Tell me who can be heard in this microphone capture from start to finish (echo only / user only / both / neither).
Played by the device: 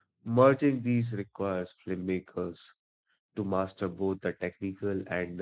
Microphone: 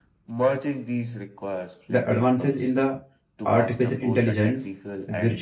both